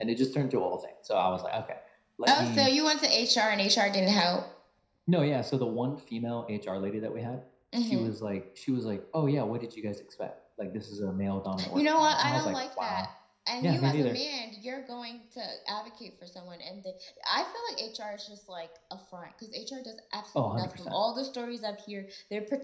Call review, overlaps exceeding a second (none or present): present